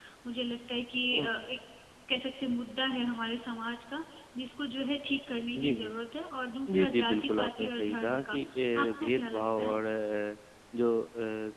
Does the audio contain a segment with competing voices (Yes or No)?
Yes